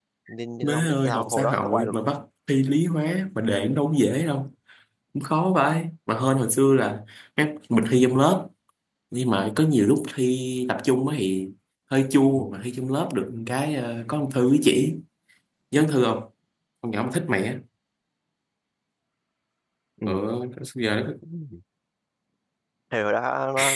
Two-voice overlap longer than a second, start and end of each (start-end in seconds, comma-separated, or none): 0.6-2.1